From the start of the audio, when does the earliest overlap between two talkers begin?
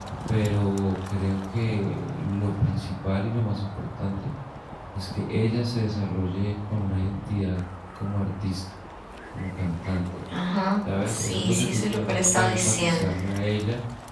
11.0 s

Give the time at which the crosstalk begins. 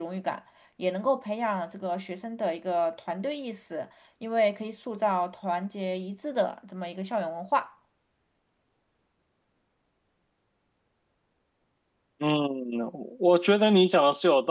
none

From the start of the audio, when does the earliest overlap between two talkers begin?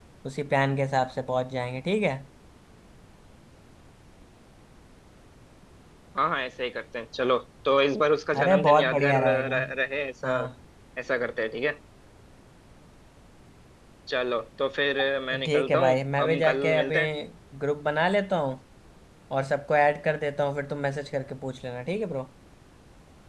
8.4 s

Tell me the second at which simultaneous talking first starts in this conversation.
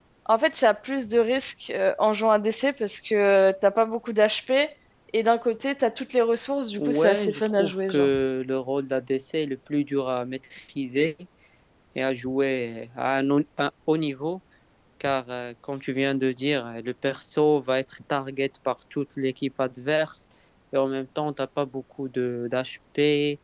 6.8 s

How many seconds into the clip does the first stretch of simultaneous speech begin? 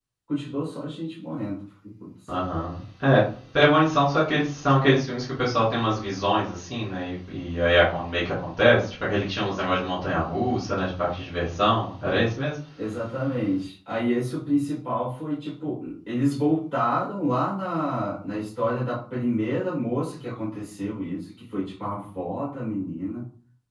none

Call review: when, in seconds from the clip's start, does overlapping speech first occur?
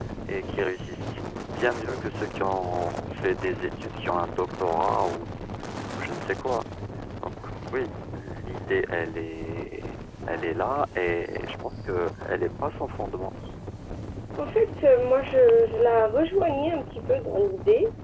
none

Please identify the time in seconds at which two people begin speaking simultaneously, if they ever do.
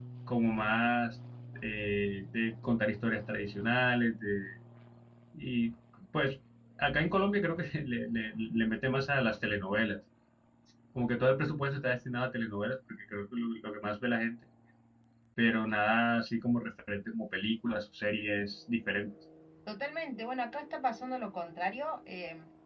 none

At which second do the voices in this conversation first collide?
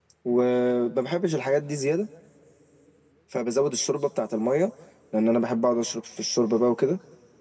none

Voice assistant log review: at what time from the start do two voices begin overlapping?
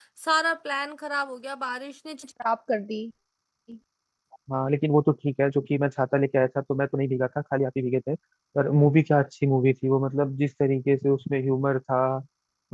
none

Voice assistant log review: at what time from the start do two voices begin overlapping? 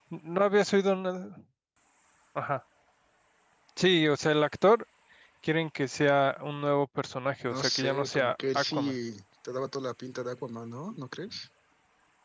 7.5 s

